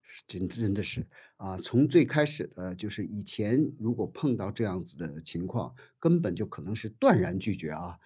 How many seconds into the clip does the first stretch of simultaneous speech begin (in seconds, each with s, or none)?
none